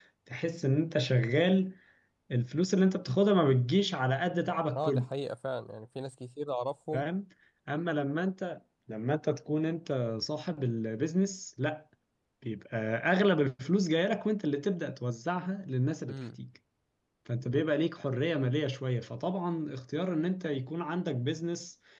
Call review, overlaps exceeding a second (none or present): none